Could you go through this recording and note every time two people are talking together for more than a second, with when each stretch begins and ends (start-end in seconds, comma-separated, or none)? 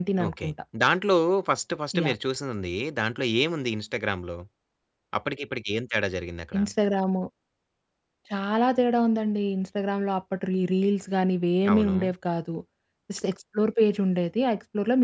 none